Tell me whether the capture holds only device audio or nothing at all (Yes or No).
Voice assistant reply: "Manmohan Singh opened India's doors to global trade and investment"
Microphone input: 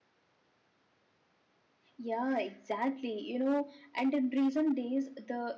No